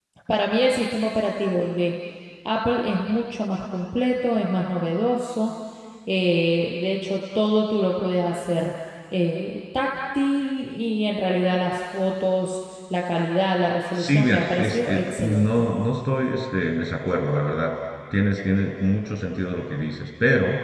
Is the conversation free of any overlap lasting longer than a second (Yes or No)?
No